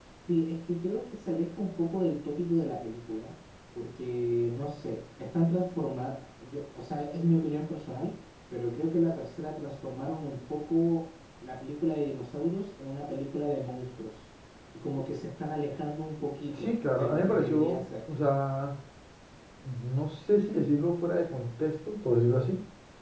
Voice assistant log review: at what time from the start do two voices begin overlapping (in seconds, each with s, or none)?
16.5 s